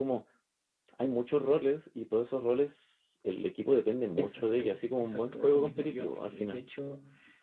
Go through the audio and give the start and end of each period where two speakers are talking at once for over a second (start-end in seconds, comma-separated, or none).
4.2-6.6